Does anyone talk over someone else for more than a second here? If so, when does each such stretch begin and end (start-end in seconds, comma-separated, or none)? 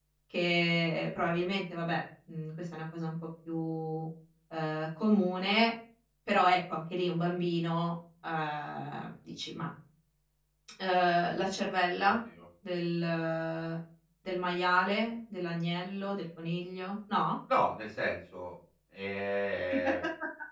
none